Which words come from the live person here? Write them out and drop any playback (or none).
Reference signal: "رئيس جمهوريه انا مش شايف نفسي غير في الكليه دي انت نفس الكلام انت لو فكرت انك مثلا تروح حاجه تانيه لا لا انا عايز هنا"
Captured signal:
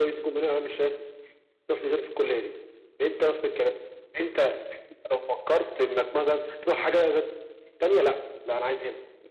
none